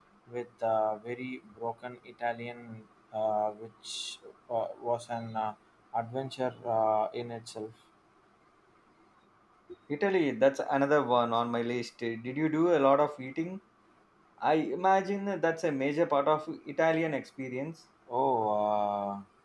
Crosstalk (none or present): none